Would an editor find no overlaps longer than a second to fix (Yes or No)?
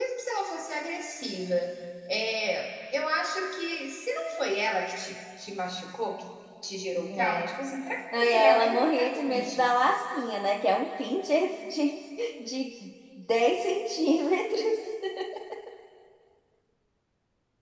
No